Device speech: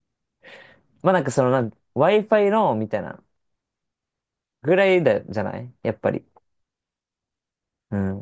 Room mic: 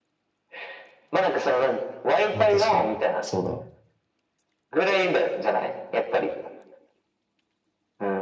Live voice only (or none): まあ確かに。そうだわ。